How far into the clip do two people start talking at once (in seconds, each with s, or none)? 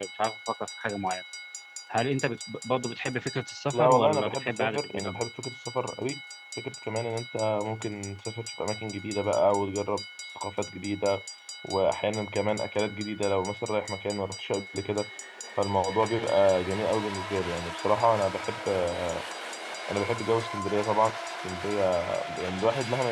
3.7 s